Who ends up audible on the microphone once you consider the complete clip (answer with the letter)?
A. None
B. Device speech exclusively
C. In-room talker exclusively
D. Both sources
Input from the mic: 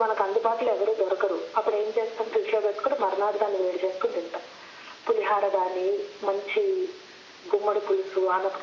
B